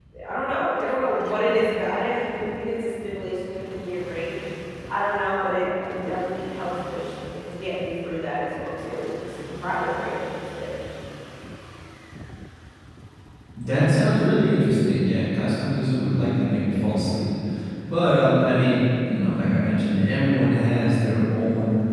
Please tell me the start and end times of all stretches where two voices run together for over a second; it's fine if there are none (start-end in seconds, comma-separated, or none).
none